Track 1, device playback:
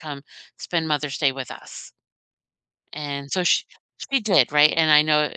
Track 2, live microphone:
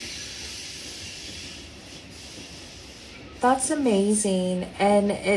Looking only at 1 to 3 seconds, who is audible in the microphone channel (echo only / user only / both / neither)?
neither